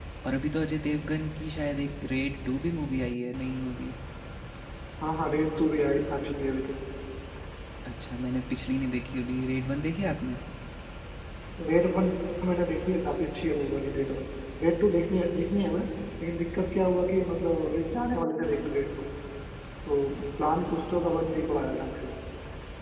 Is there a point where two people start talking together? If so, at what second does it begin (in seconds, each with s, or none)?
none